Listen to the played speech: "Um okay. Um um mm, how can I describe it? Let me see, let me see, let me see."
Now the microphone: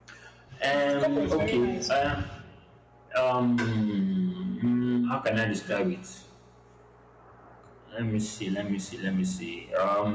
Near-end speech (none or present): present